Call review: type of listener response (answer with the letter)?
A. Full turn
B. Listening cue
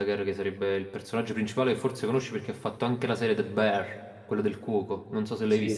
A